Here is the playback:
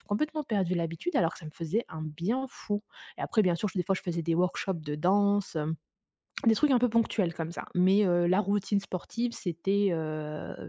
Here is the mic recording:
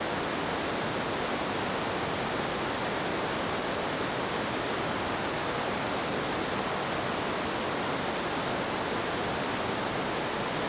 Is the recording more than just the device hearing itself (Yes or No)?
No